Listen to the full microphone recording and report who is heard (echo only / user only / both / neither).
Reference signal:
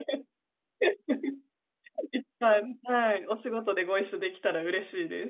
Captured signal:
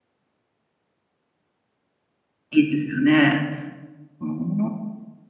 user only